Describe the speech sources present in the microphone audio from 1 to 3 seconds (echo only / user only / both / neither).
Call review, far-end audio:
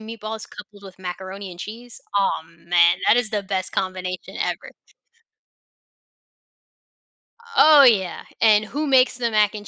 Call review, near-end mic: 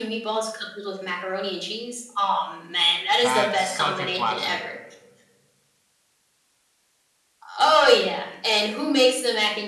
echo only